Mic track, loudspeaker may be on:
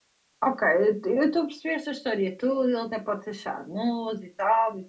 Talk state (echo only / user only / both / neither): user only